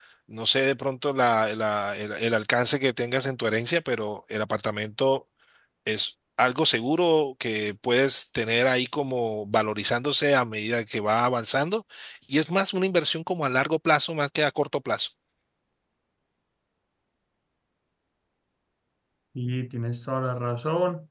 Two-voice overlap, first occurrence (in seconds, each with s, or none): none